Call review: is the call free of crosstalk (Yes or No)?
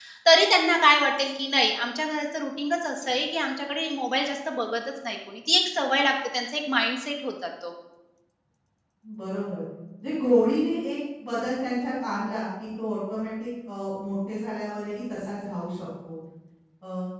Yes